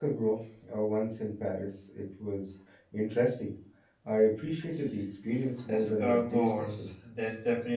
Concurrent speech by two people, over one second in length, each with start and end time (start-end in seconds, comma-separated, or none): 5.7-6.9